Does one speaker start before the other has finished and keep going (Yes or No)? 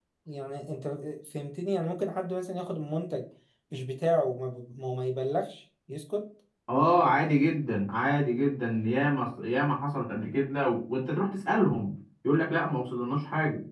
No